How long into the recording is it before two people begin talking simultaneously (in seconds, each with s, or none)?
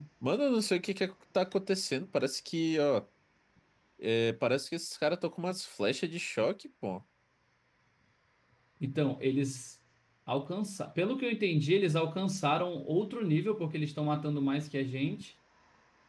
none